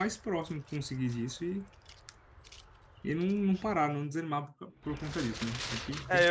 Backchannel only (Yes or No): No